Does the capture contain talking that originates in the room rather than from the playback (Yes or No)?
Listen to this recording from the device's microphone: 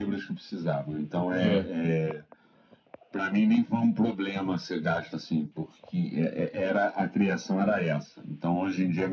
Yes